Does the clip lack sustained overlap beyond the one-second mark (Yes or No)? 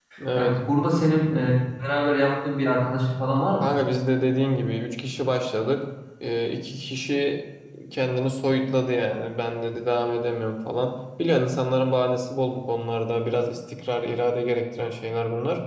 Yes